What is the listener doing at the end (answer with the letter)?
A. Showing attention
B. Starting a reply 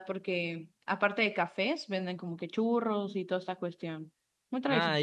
B